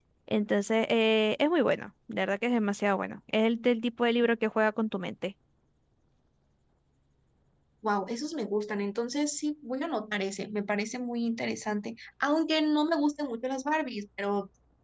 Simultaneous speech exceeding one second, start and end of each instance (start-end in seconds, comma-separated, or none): none